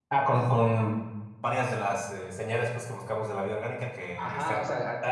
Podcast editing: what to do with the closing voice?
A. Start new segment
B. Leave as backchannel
A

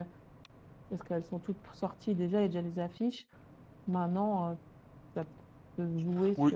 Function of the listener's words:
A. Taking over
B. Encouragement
A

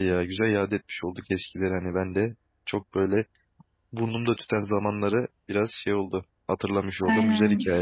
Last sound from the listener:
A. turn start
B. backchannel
A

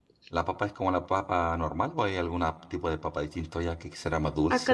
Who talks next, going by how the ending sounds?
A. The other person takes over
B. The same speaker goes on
A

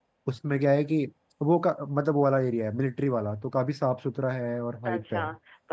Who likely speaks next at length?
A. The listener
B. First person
A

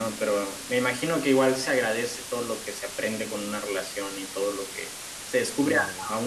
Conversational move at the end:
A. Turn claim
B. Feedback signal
B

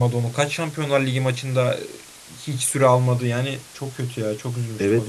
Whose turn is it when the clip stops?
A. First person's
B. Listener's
B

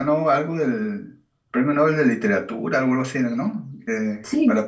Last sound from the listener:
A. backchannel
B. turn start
B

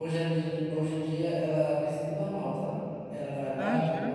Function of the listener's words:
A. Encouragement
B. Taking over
A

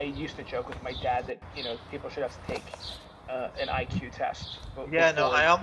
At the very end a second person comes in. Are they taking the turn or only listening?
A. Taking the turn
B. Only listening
A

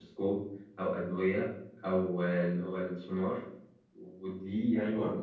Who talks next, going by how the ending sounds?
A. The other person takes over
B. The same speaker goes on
B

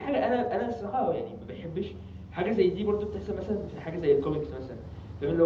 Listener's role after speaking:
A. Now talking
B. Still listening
B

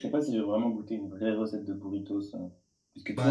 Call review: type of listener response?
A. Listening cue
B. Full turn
B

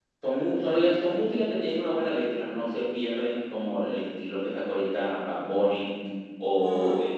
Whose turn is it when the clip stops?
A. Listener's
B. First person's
B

